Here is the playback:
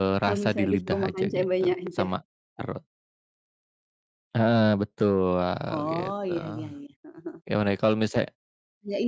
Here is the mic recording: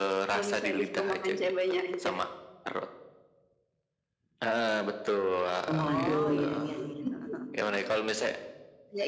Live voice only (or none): Waduh kalo gitu